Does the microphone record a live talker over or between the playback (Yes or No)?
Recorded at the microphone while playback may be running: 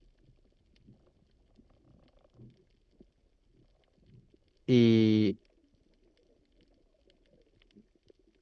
Yes